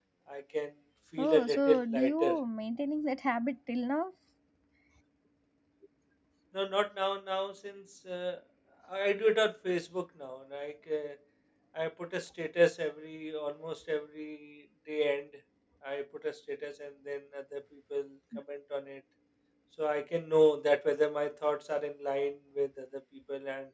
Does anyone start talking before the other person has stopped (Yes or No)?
Yes